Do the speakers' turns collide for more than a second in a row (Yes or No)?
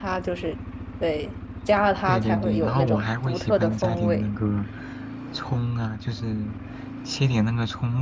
Yes